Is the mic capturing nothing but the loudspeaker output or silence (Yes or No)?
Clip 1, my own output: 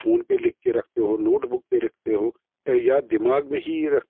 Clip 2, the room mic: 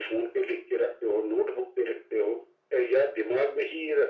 Yes